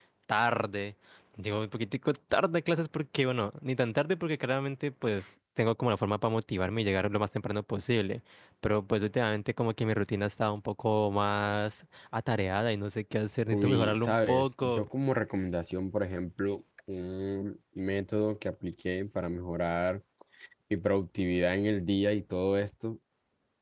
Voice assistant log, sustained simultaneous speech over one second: present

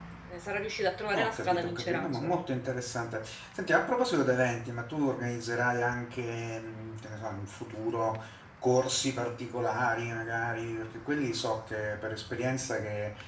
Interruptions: present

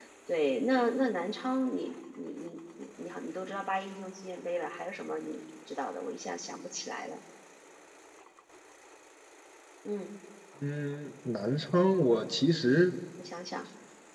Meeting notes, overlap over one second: none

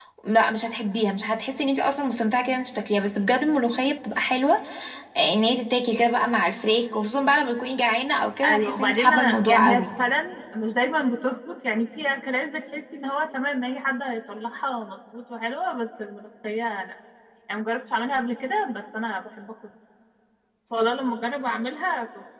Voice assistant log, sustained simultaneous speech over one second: present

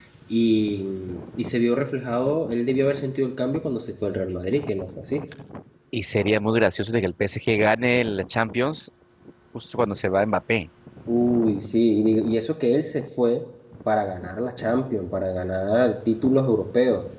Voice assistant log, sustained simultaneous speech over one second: none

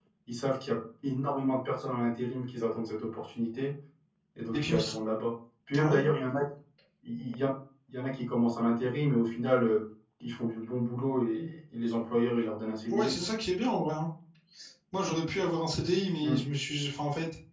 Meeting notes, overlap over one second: none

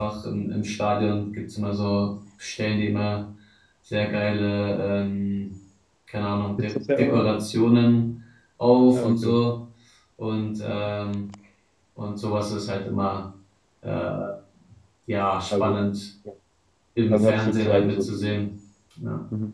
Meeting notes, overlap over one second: present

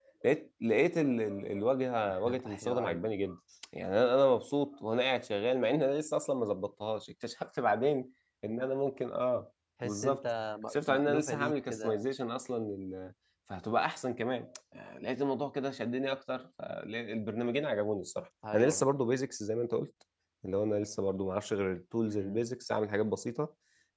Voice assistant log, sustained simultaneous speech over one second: present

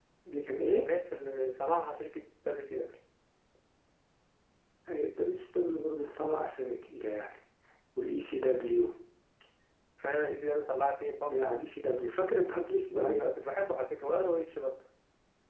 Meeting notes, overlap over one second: none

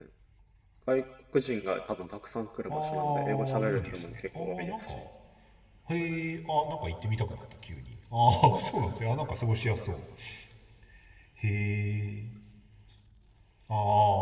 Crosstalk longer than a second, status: present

